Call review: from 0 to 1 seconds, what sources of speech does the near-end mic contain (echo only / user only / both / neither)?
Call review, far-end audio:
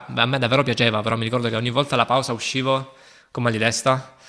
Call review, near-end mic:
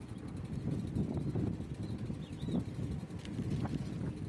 neither